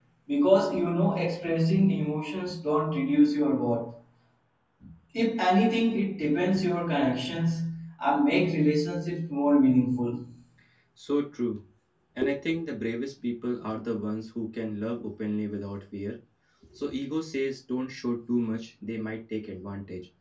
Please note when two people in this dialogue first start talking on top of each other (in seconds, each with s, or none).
none